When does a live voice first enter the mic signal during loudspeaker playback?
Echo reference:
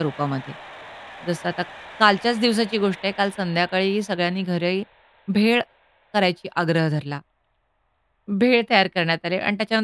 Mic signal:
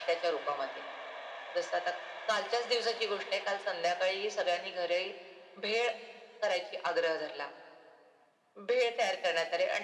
none

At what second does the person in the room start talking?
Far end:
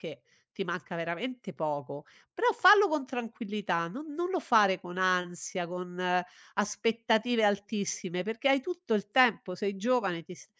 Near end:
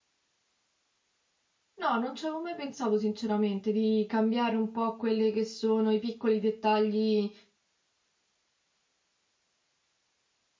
1.8 s

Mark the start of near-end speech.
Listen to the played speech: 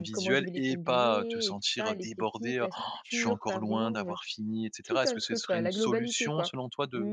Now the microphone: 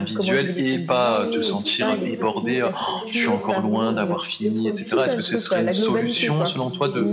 1.0 s

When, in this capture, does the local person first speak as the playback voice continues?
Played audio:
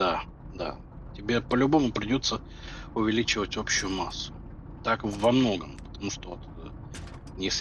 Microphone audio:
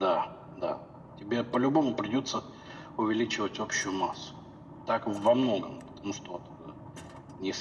none

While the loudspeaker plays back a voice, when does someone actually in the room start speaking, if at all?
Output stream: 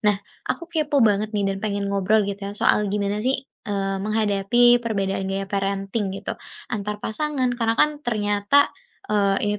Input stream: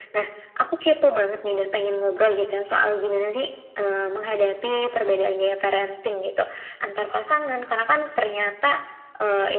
none

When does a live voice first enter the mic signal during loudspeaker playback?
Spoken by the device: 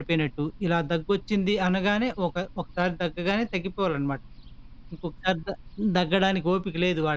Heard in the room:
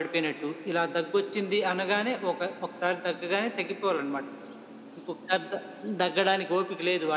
none

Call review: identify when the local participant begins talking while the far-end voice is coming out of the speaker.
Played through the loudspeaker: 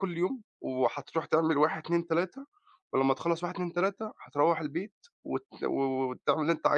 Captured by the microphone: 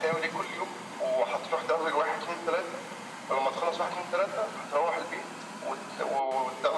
none

